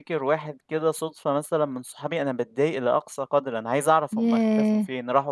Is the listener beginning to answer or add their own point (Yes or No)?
No